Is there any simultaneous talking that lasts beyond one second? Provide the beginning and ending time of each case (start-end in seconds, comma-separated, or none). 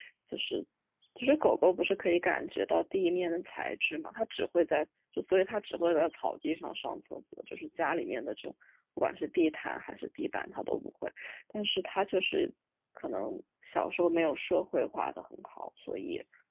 none